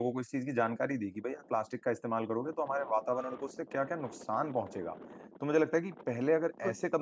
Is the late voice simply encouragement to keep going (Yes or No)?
Yes